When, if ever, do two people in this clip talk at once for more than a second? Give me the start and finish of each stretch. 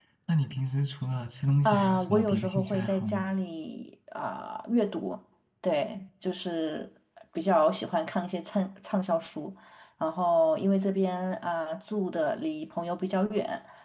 1.6-3.2

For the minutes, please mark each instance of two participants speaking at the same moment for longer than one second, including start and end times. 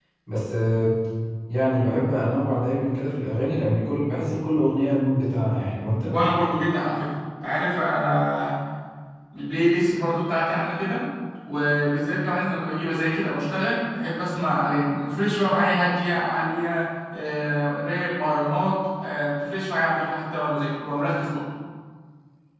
none

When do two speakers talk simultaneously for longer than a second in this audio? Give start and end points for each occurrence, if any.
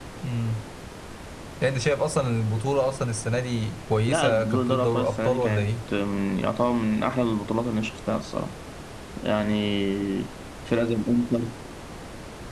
4.1-5.7

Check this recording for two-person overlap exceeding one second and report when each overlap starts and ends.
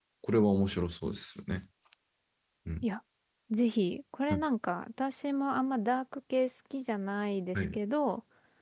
none

